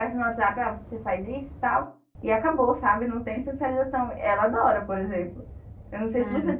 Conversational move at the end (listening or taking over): listening